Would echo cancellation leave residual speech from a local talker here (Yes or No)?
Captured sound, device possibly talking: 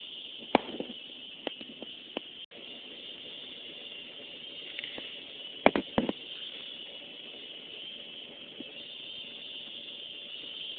No